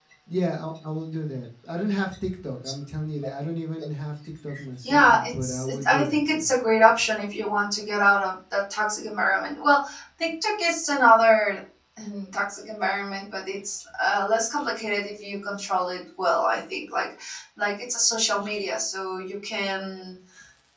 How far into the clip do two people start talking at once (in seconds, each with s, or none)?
4.8 s